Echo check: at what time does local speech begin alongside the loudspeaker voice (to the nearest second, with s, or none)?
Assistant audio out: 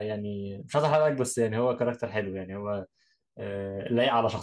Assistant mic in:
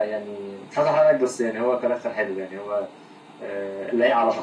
none